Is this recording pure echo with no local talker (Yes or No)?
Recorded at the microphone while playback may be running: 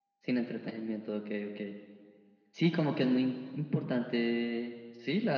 Yes